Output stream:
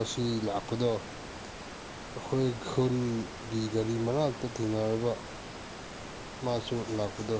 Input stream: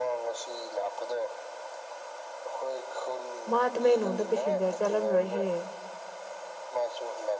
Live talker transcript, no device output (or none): ꯃꯥ ꯇꯃꯦꯂꯣꯡꯗ ꯄꯦꯁꯦꯟꯖꯔ ꯆꯠꯂꯝꯔꯣꯏꯍꯦ